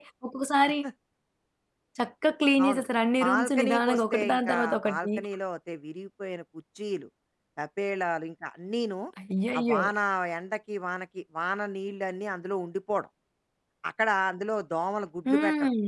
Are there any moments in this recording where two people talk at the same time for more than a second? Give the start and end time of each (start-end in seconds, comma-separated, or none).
3.2-5.1